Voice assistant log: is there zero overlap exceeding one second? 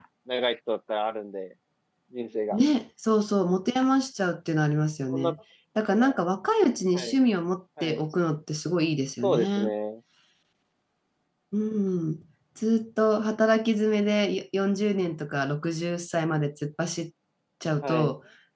Yes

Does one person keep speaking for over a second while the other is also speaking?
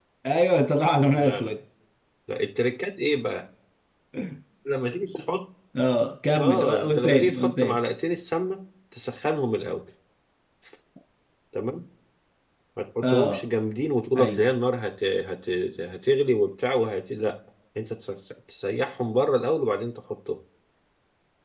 Yes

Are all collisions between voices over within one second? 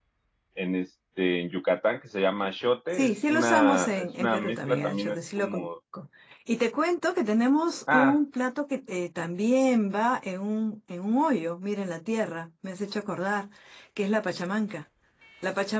No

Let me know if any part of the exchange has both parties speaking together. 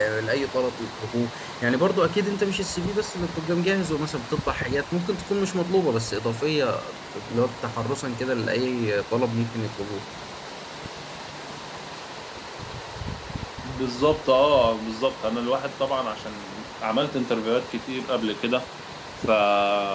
No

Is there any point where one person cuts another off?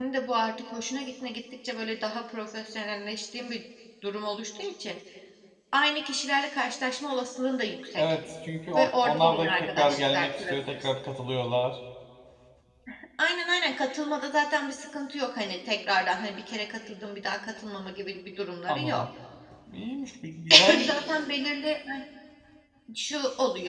Yes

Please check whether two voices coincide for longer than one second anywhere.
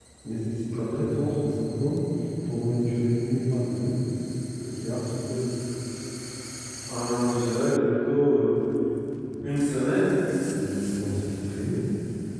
No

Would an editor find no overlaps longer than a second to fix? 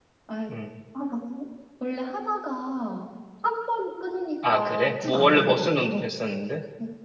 No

